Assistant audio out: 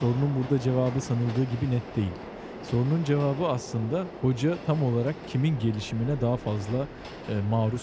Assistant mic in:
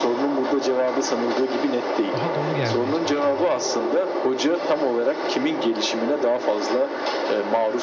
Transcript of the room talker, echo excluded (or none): Daha dolu gelmeye çalışıyorum.